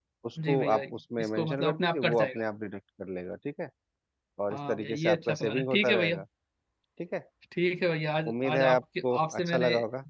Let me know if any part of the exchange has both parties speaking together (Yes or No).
Yes